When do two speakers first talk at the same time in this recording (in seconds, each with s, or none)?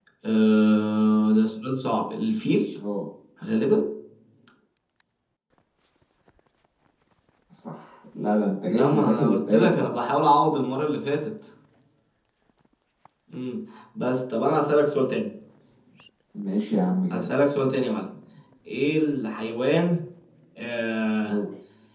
8.7 s